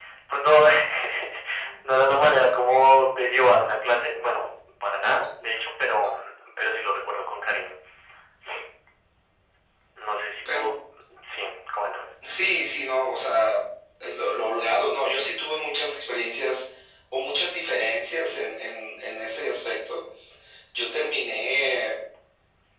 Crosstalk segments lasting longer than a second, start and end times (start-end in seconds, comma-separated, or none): none